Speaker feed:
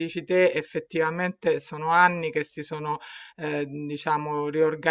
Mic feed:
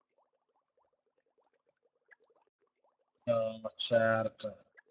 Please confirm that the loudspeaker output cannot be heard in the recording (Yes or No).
Yes